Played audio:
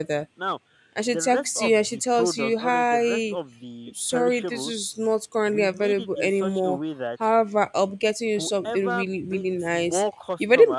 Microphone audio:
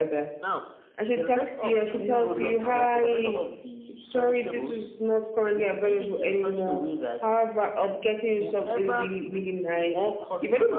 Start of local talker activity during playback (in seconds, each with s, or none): 1.8 s